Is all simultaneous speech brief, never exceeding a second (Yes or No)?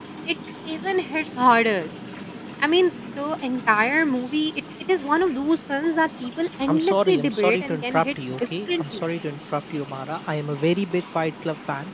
No